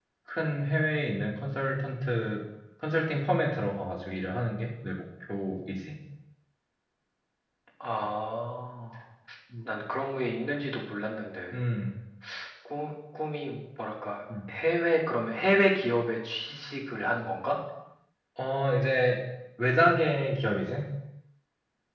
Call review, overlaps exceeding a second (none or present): none